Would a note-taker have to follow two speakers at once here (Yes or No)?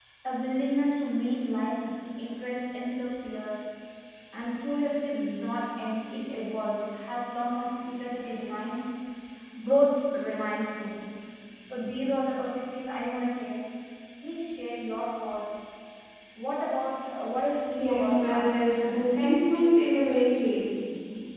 Yes